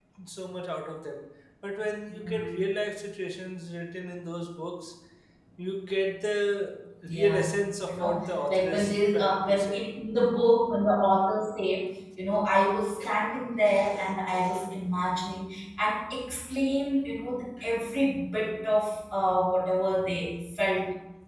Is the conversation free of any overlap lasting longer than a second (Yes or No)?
No